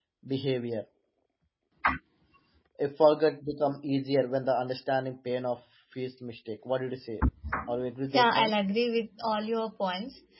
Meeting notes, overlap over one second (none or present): none